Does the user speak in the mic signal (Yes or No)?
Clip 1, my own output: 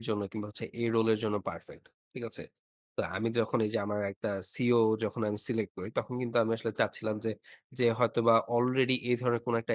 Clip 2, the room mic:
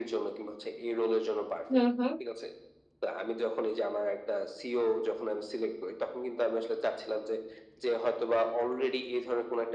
Yes